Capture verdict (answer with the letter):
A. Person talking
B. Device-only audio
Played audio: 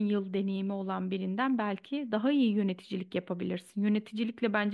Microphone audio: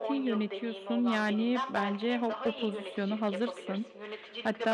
A